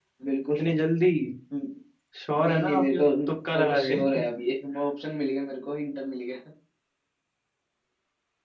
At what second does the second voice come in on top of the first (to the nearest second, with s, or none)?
3 s